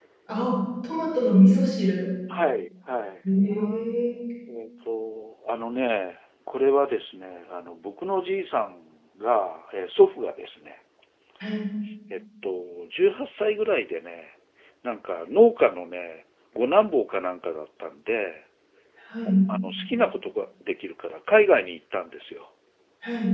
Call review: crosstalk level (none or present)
none